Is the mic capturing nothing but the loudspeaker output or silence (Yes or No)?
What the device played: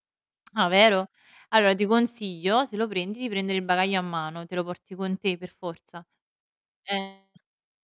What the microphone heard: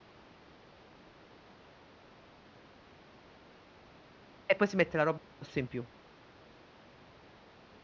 No